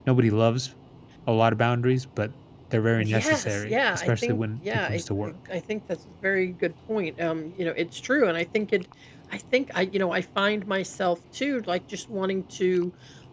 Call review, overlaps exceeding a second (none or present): present